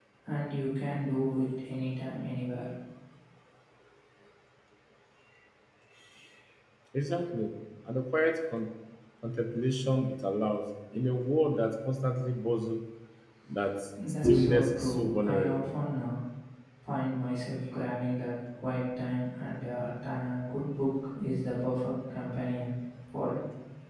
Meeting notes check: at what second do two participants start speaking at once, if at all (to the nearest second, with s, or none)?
14 s